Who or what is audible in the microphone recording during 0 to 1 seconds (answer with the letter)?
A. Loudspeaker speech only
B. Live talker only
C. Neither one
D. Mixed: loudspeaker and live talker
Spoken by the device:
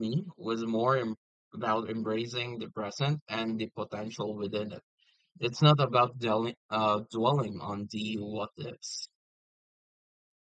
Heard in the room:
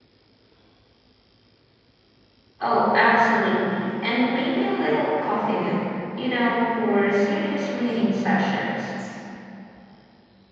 C